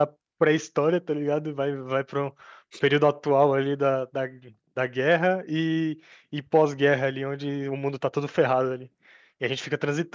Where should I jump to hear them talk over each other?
none

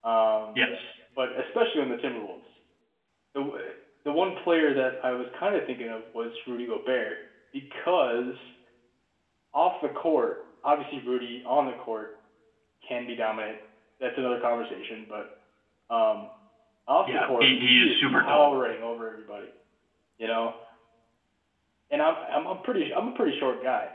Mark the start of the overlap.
17.1 s

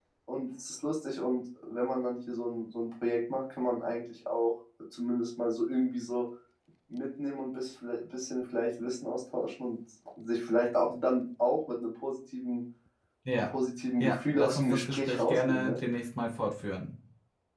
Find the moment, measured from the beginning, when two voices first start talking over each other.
14.0 s

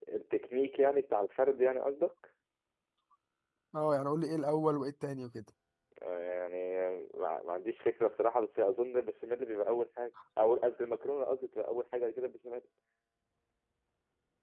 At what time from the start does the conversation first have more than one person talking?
none

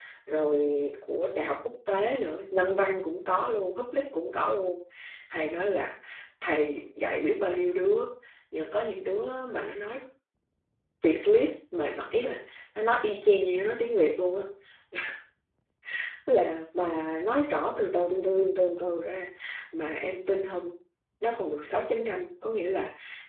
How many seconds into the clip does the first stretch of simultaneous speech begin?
none

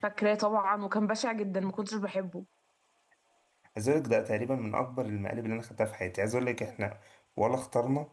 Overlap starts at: none

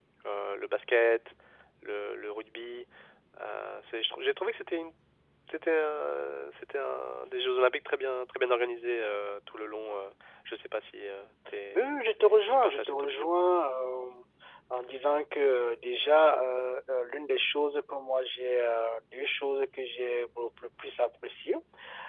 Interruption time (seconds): 11.7 s

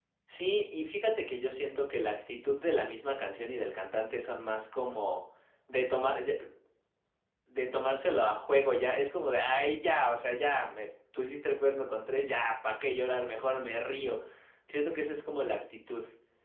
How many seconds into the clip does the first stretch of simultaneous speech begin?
none

